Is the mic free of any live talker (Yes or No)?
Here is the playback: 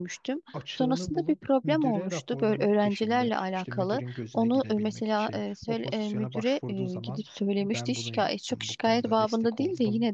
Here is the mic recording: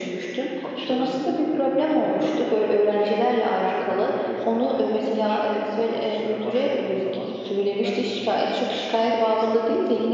Yes